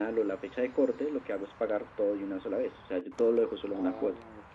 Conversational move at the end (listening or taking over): taking over